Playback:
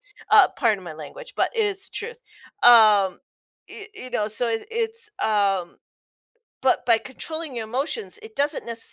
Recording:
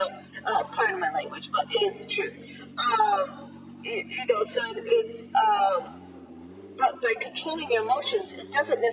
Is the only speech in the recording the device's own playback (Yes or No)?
Yes